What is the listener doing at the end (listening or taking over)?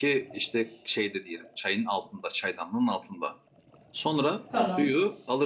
listening